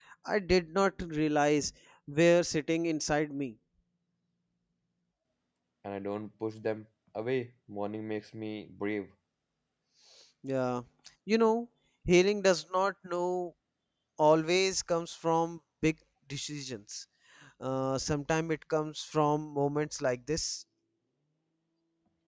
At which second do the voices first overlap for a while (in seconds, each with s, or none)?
none